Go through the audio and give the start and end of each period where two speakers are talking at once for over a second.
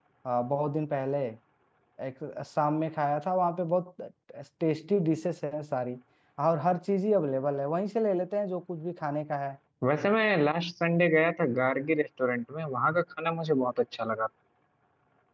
none

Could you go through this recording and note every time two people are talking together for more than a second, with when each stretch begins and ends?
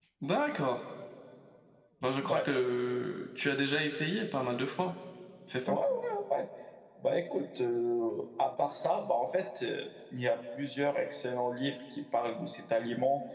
none

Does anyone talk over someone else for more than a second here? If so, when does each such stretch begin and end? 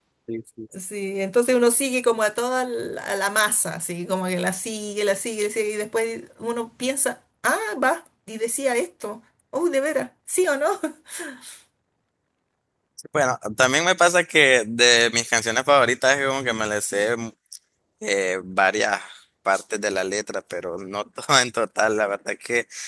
none

